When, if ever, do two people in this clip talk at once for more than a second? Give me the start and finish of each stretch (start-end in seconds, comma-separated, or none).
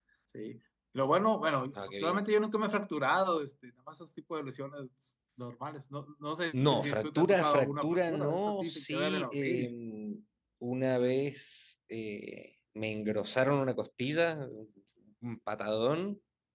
6.7-9.7